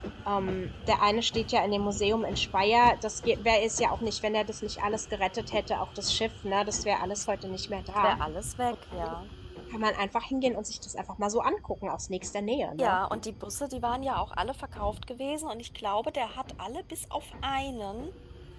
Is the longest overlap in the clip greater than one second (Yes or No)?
No